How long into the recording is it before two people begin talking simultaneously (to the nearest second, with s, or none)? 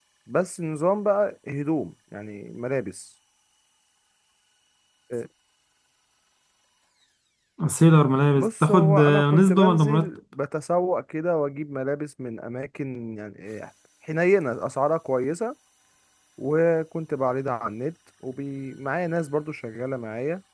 8 s